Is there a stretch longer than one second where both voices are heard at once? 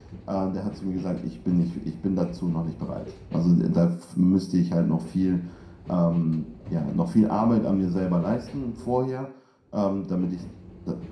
No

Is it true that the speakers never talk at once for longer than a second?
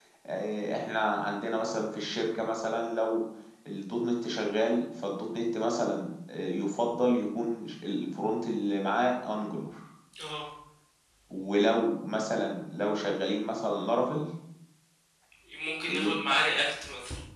Yes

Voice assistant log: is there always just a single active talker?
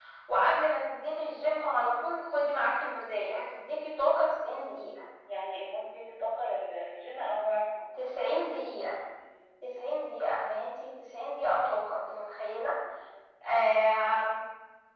Yes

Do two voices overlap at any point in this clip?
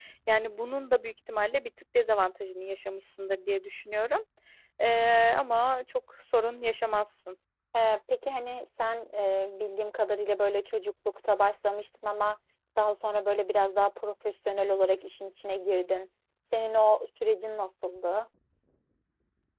No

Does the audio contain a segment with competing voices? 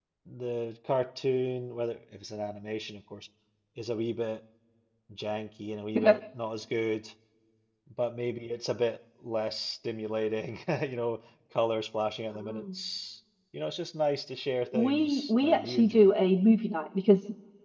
Yes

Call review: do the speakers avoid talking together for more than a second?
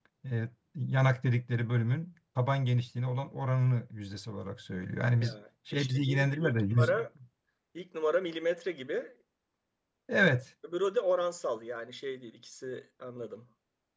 No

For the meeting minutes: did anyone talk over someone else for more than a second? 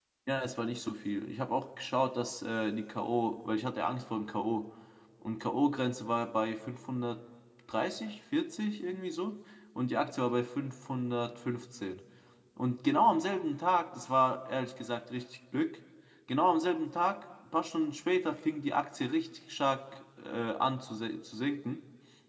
No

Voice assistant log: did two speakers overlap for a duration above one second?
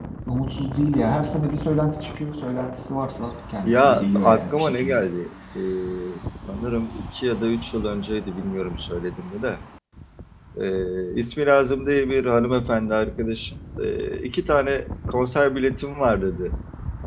Yes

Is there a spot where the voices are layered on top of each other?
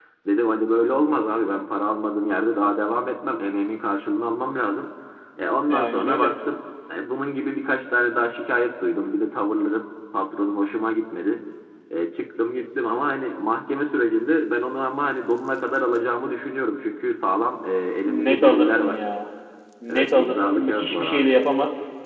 Yes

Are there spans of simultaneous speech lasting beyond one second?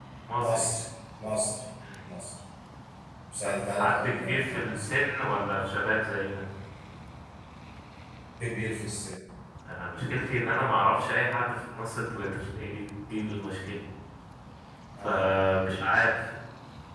Yes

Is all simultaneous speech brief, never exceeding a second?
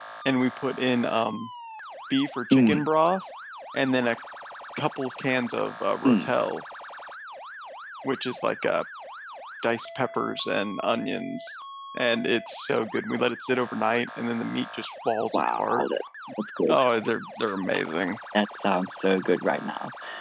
Yes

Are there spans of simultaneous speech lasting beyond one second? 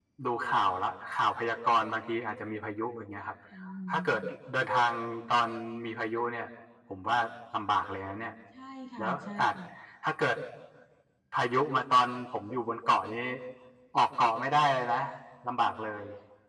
No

